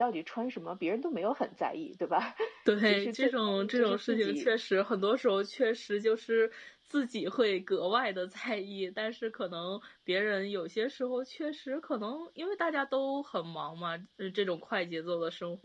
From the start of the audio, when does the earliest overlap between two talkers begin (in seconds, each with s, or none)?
2.8 s